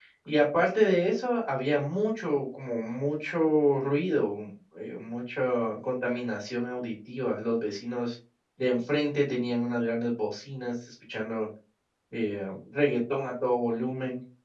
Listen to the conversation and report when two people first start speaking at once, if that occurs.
none

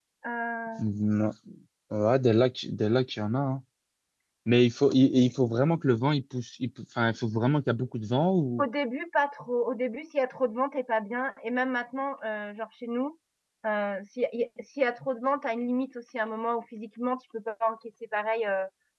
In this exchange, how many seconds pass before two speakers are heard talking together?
none

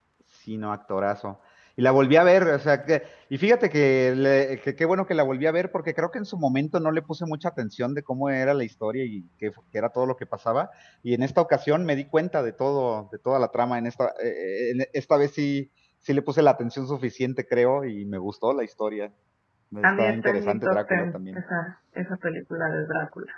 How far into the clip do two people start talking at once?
19.8 s

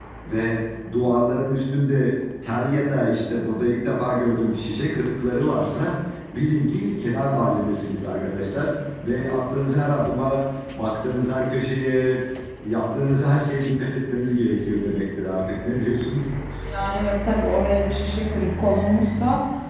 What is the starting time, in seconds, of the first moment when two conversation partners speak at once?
none

